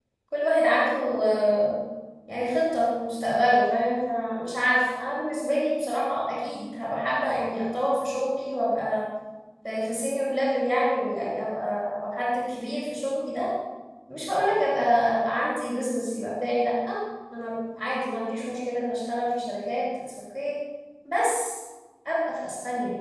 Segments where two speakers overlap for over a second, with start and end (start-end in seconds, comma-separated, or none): none